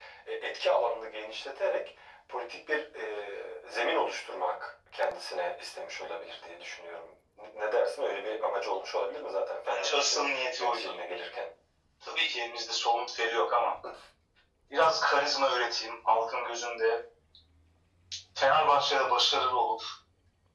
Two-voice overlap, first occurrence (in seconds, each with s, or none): 9.6 s